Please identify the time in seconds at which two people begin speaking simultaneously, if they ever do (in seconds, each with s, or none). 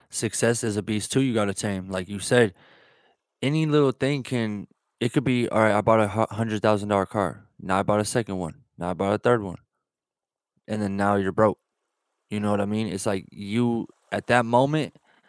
none